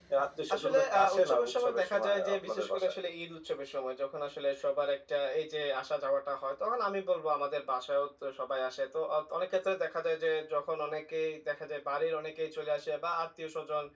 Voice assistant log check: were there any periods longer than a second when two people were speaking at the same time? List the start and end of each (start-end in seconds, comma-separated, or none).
0.6-2.9